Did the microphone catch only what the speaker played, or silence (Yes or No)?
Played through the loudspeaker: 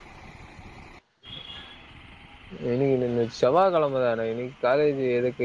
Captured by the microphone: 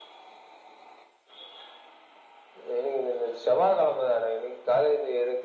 Yes